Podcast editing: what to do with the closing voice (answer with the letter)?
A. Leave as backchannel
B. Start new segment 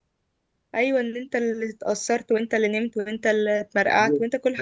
B